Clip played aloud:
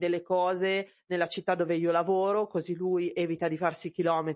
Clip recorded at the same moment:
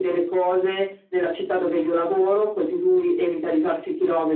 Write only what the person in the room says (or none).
none